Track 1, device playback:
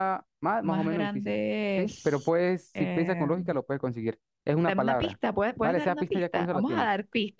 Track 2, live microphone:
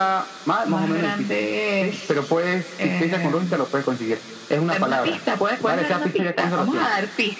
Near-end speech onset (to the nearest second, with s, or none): none